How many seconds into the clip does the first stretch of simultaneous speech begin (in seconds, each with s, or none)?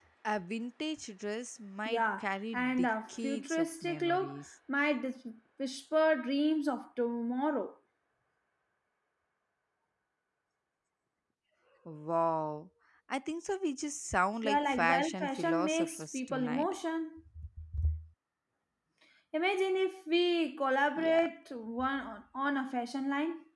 1.8 s